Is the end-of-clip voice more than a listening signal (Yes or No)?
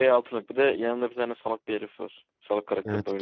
Yes